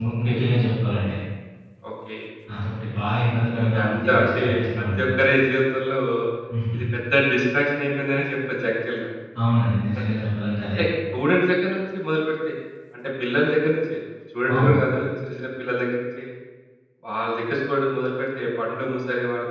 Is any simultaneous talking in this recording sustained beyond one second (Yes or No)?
Yes